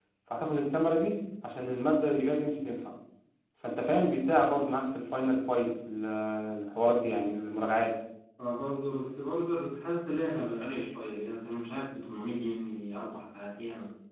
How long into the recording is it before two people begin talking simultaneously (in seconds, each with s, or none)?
none